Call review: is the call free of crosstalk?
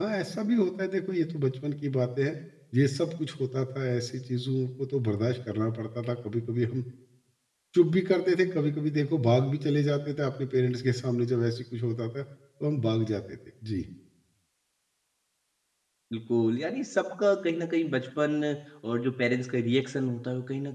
Yes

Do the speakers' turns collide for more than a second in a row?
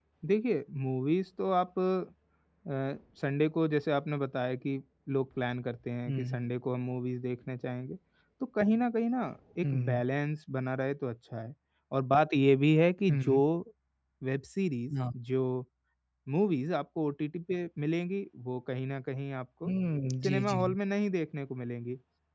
No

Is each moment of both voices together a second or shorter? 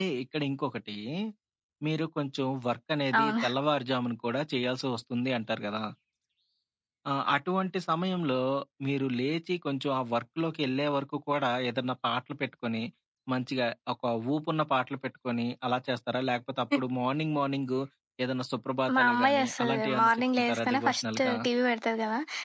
No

